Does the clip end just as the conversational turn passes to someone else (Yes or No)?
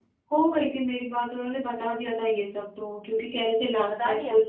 No